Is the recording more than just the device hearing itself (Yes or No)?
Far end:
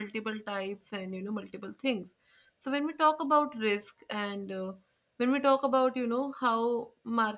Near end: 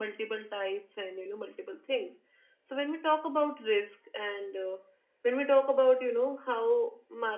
No